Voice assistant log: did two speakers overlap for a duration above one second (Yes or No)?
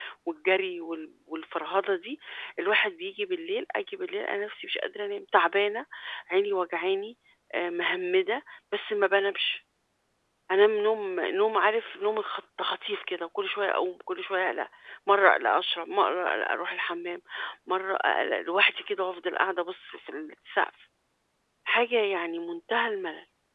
No